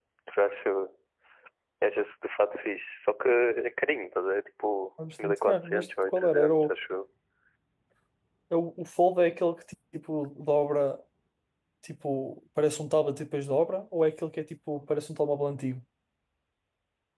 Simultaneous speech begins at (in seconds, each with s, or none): 5.0 s